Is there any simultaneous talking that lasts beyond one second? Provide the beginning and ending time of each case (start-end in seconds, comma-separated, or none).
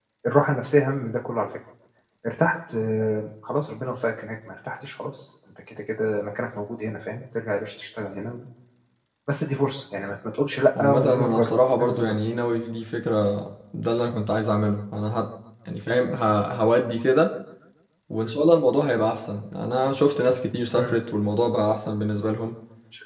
10.8-12.1